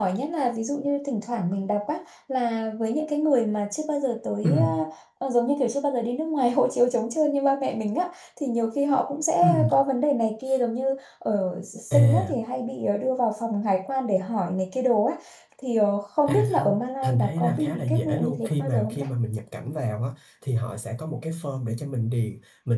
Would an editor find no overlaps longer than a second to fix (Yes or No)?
No